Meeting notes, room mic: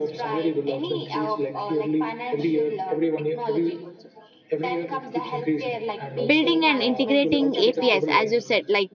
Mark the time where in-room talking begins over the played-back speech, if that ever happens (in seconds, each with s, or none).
6.2 s